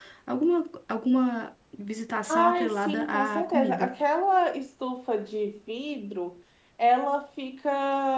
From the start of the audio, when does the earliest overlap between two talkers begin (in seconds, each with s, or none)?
2.3 s